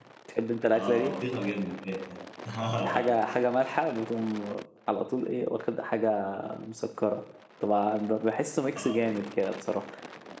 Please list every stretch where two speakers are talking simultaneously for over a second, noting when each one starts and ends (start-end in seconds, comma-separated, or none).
none